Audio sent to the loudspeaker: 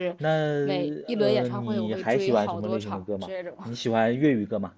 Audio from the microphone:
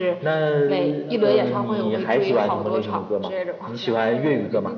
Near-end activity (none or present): present